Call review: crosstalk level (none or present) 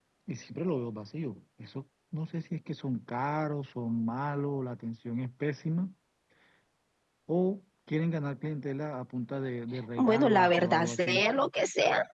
present